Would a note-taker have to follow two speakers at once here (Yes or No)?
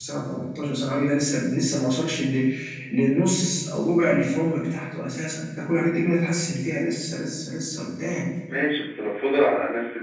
No